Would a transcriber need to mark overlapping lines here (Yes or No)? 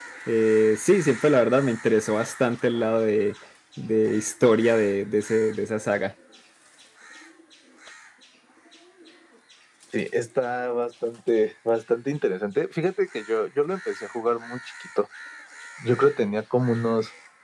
No